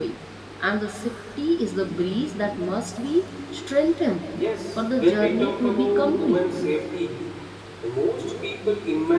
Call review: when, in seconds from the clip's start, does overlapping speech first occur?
4.9 s

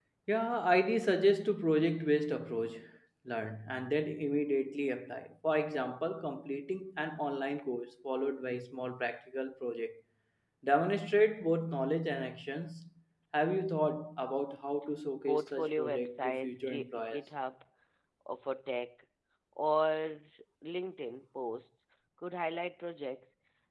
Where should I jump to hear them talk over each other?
15.3 s

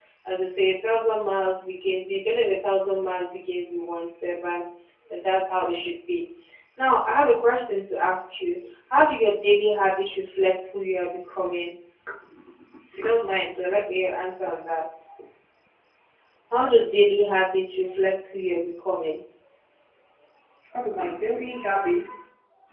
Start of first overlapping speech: none

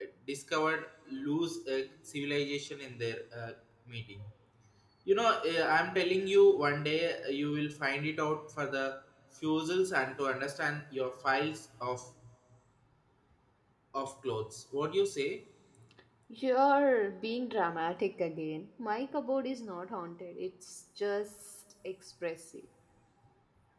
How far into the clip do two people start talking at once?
none

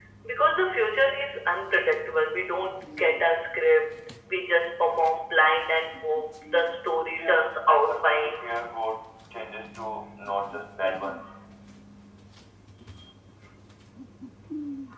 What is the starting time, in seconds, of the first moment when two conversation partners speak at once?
7.2 s

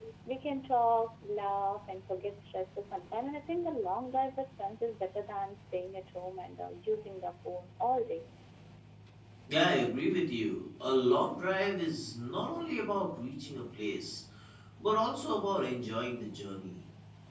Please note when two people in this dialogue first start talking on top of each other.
none

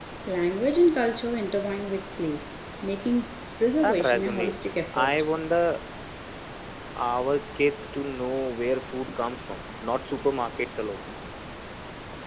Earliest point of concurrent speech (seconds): 3.8 s

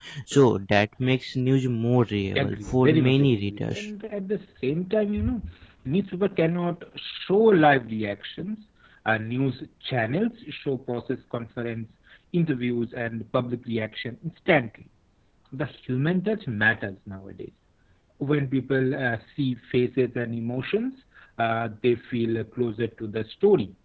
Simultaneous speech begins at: 2.4 s

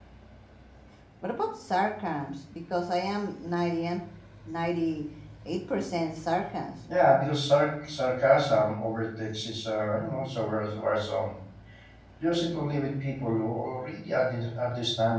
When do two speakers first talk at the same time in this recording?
none

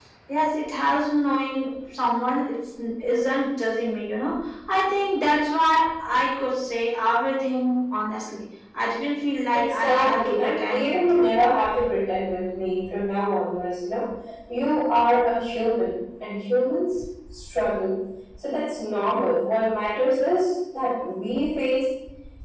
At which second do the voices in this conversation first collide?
9.5 s

